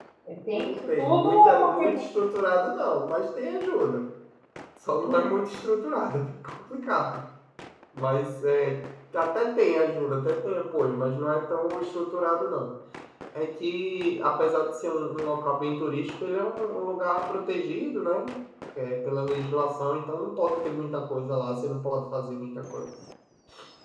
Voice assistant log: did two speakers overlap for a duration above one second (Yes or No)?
Yes